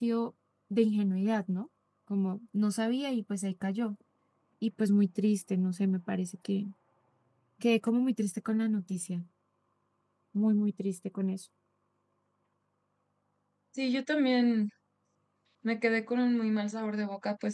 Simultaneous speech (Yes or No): No